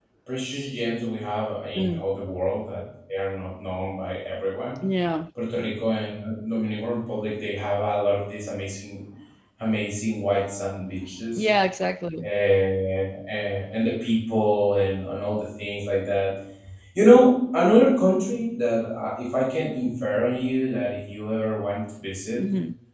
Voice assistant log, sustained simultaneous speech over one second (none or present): none